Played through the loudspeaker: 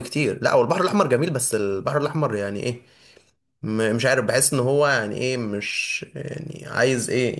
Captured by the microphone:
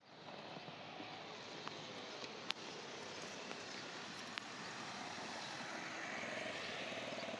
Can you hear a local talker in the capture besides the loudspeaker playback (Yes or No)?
No